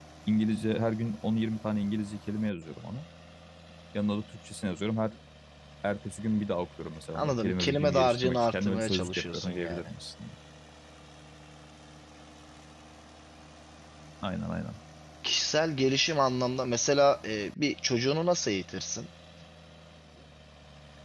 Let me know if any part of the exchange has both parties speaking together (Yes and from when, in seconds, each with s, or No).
Yes, from 7.2 s